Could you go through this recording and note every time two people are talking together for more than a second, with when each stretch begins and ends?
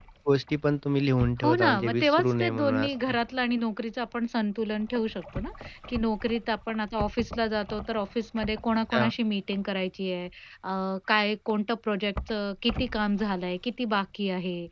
1.4-3.1

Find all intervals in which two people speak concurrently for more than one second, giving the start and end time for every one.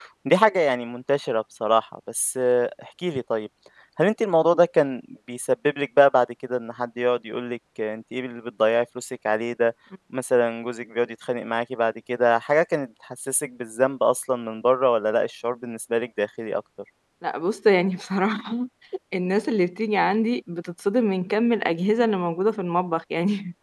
none

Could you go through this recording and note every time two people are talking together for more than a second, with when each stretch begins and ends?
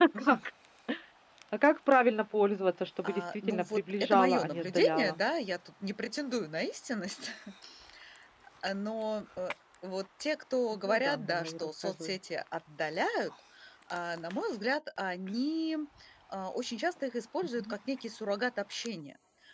3.0-5.2, 10.8-12.2

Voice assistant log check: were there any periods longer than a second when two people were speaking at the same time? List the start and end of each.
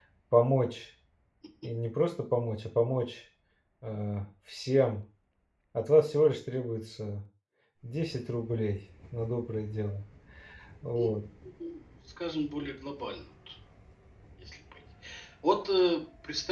none

